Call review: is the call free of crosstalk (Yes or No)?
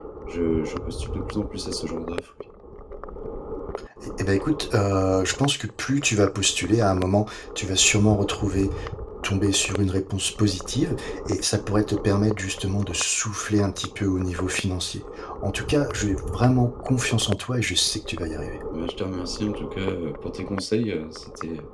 Yes